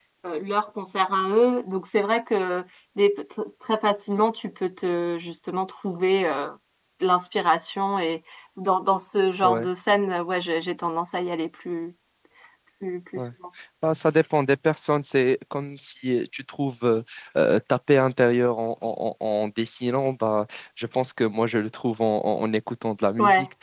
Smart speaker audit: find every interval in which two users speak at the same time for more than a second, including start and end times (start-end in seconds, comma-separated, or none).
none